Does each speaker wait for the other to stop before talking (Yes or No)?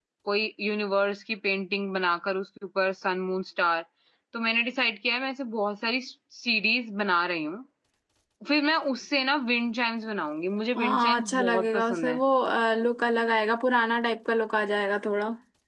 No